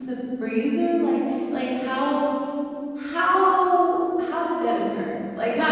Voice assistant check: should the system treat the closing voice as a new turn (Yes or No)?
No